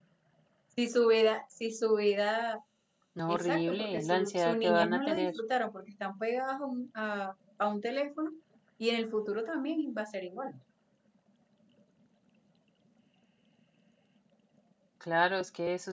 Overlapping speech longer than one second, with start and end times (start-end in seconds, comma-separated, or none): 3.3-5.3